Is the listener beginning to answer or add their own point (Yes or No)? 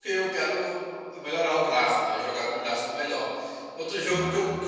No